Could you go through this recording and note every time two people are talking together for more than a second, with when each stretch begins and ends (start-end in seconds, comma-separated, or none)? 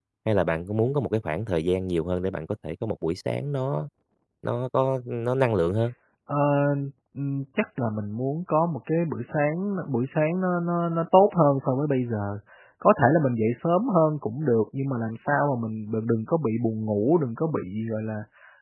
none